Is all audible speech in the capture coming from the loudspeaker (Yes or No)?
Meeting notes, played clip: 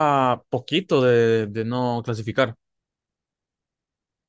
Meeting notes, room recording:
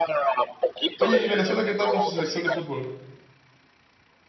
No